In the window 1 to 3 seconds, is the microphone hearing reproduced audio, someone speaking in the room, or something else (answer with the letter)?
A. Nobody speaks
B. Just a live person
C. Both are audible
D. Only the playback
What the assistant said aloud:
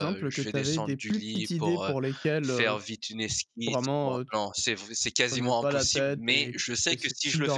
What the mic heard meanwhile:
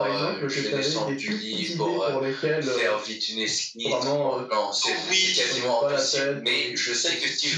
D